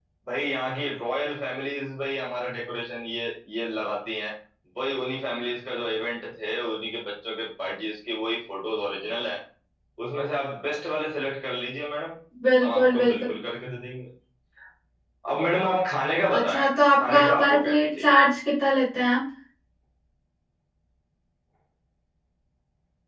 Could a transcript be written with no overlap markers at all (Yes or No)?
No